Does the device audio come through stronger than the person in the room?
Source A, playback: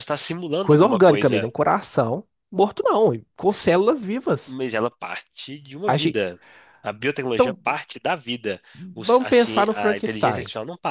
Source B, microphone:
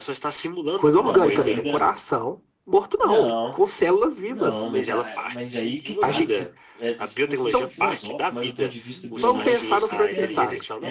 Yes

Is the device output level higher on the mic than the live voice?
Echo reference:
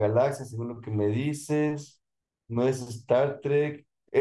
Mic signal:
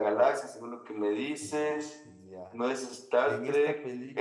Yes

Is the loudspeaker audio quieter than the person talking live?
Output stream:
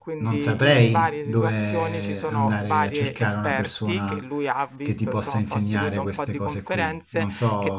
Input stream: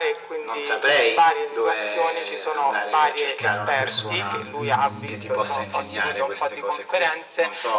No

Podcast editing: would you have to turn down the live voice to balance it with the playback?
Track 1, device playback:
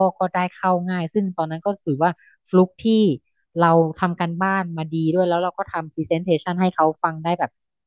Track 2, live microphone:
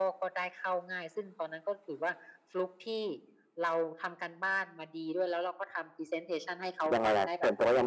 Yes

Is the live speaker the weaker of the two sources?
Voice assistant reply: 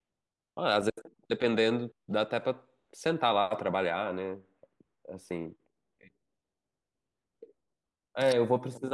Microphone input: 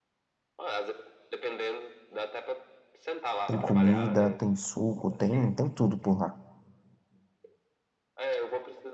No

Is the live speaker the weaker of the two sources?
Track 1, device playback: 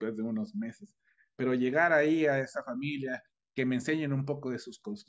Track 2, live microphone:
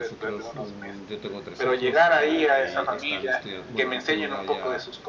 Yes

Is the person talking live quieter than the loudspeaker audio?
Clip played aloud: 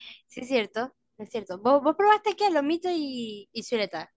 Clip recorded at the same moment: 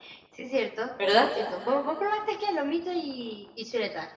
No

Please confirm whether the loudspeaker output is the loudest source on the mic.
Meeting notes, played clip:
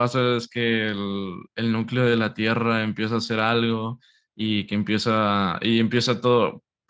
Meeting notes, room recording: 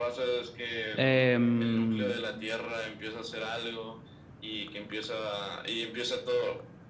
No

